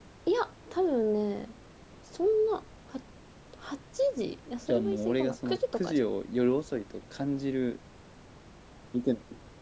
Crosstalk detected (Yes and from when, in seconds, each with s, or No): Yes, from 4.7 s